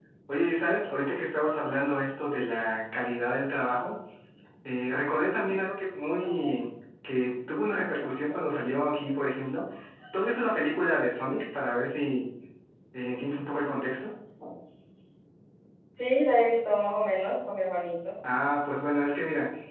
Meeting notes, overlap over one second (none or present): none